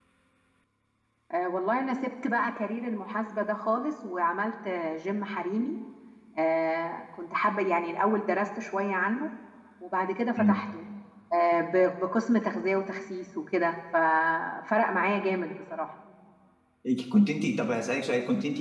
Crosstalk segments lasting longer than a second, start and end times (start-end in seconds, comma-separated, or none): none